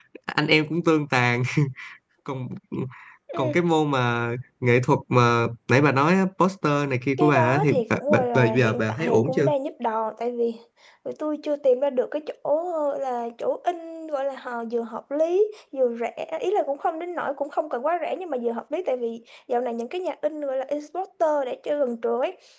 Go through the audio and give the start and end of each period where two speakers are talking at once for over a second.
7.2-9.5

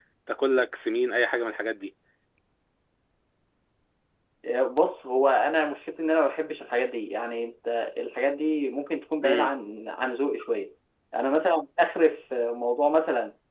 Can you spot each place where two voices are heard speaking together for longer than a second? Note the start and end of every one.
none

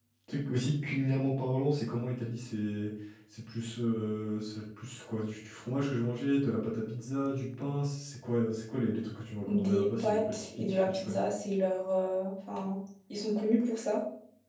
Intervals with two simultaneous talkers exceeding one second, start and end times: 9.4-11.2

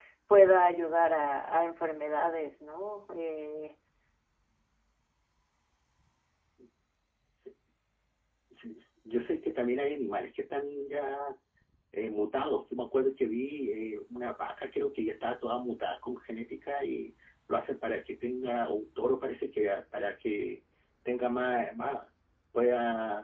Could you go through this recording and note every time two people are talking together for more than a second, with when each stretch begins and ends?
none

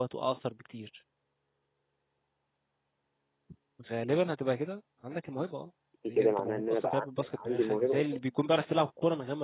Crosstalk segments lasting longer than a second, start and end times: 6.0-8.2

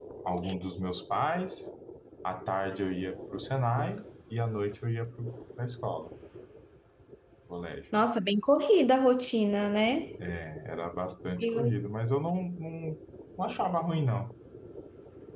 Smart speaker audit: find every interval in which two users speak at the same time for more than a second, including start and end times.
none

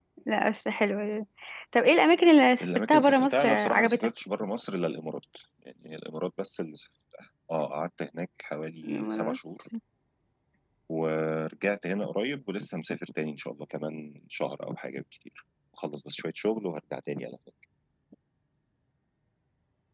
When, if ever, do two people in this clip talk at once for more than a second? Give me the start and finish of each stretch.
2.6-4.1

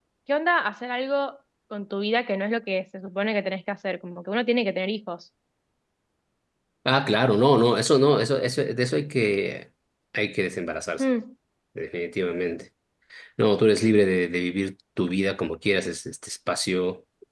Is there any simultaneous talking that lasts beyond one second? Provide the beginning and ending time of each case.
none

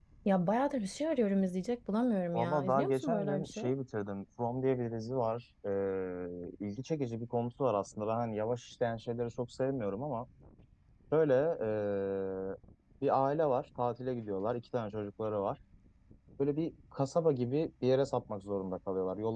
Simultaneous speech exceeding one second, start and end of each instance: 2.3-3.7

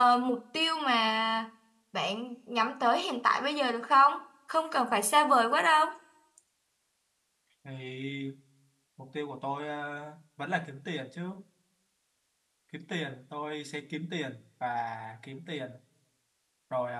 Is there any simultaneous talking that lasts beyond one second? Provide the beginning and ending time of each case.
none

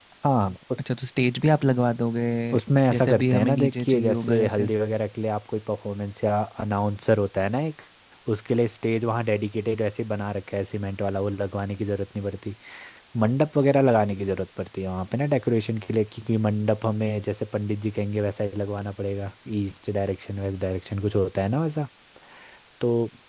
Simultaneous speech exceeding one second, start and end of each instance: 2.9-4.7

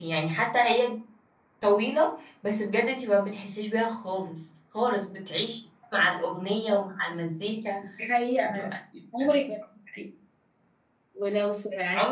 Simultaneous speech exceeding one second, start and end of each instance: none

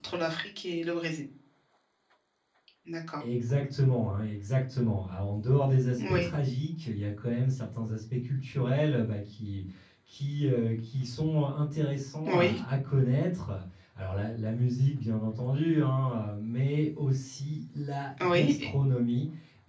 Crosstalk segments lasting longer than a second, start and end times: none

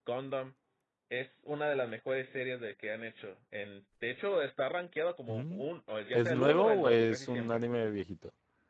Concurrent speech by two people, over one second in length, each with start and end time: 6.1-7.6

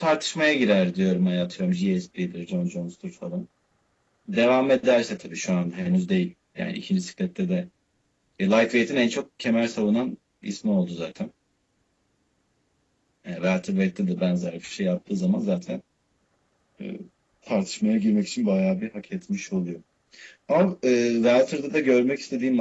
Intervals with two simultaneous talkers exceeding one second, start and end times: none

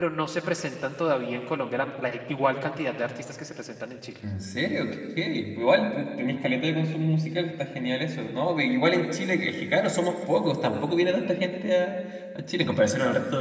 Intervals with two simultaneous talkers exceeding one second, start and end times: none

